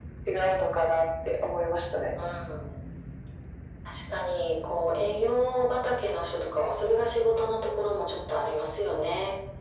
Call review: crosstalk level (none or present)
none